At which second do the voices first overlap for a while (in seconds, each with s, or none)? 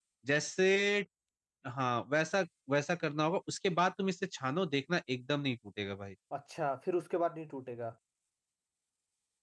none